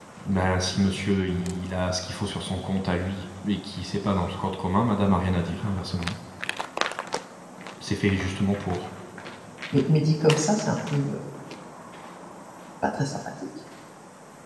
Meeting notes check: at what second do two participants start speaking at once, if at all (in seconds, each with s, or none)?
none